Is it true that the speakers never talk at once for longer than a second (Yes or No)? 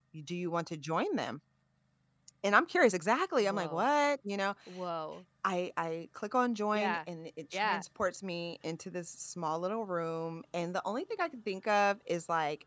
Yes